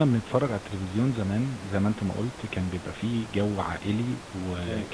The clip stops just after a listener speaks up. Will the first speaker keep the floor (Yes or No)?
Yes